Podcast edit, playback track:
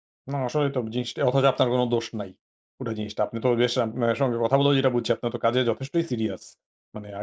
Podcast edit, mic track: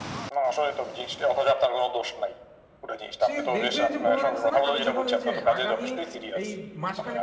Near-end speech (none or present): present